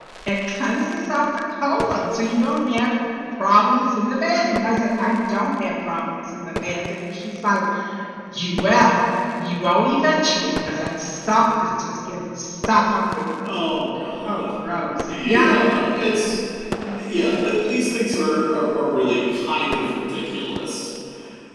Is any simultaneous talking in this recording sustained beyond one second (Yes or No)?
No